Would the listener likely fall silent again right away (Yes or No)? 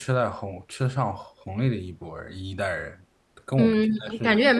No